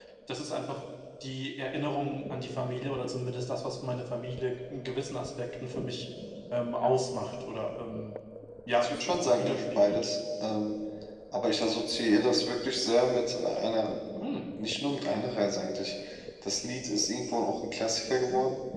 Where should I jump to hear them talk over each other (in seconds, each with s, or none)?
8.8 s